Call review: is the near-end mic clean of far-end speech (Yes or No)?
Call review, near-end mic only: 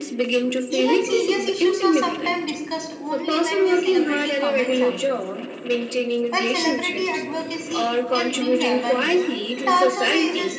No